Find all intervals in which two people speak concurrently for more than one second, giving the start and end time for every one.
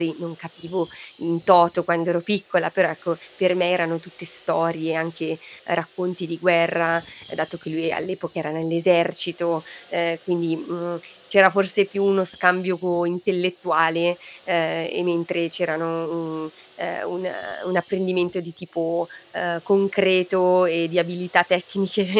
none

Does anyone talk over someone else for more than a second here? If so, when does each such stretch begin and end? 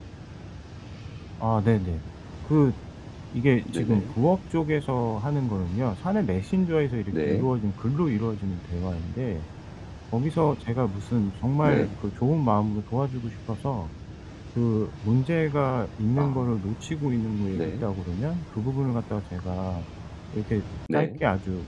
none

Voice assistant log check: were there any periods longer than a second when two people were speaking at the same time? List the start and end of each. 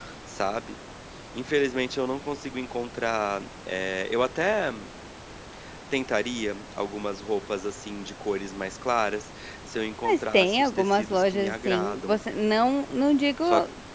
10.0-12.2

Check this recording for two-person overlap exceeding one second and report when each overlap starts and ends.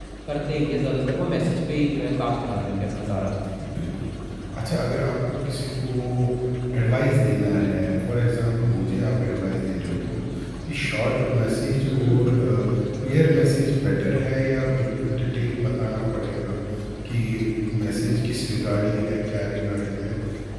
none

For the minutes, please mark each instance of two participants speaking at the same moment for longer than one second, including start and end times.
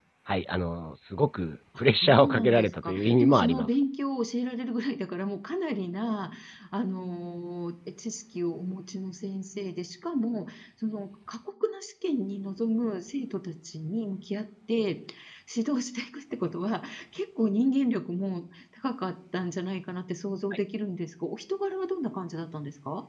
2.0-3.7

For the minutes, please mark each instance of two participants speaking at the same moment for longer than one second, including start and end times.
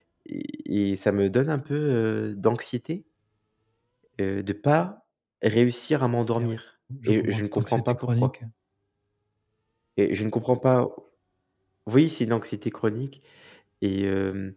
7.0-8.3

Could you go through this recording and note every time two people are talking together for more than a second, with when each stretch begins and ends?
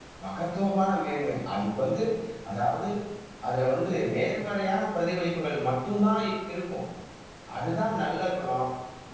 none

